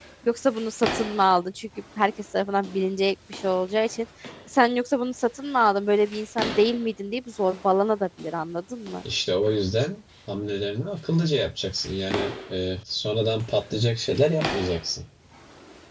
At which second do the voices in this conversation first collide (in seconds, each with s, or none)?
none